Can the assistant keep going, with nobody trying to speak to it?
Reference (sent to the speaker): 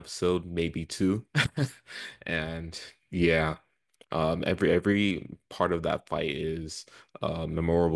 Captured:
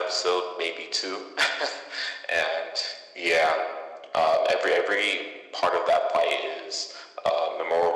Yes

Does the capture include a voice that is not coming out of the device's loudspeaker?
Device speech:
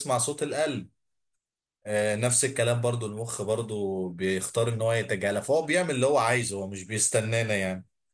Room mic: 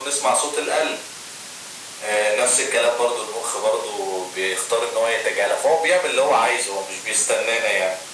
No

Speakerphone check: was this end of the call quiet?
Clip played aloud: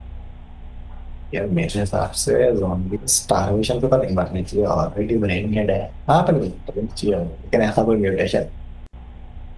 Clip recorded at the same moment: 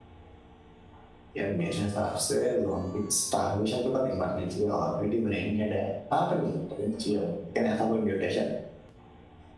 Yes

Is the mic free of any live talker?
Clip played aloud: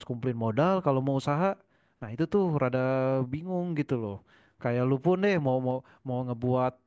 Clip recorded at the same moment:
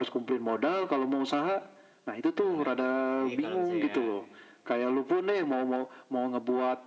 No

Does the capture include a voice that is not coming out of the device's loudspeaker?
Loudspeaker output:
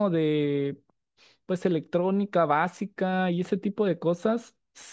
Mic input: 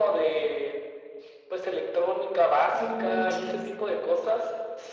Yes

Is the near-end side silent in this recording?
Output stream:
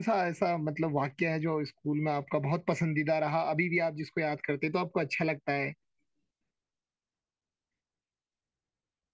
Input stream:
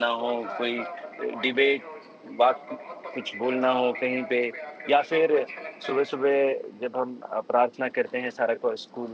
No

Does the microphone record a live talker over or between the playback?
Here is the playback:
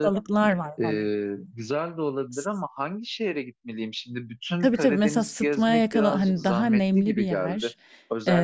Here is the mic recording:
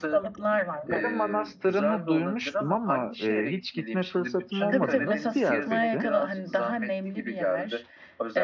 Yes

